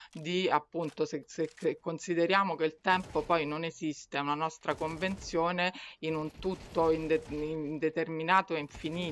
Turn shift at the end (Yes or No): Yes